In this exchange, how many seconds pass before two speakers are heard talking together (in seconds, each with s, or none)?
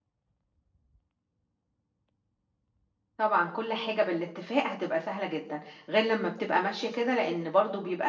none